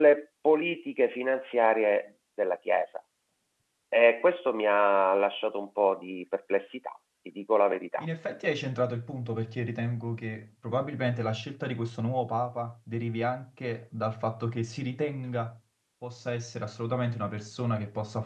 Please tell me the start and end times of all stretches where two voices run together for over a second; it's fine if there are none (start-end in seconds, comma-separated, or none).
none